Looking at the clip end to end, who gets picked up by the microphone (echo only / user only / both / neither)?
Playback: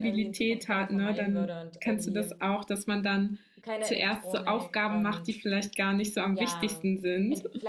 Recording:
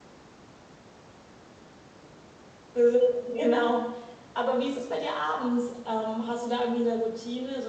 user only